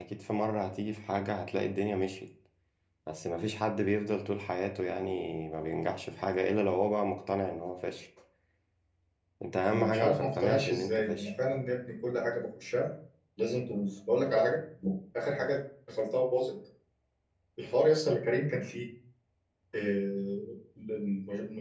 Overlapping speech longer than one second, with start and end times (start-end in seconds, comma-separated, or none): 9.7-11.3